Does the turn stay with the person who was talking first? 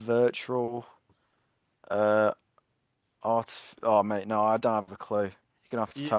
No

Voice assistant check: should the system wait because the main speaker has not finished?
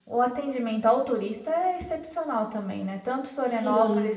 Yes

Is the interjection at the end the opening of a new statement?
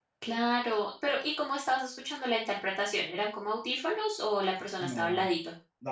Yes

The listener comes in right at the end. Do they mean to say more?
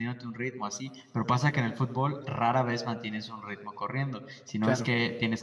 No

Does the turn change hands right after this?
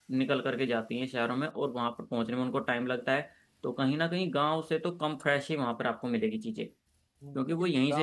Yes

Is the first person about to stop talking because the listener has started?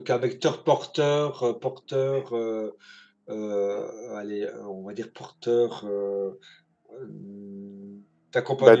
No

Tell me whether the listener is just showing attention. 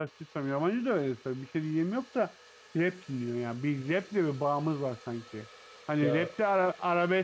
Yes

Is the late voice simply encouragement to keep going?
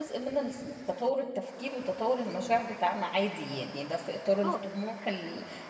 Yes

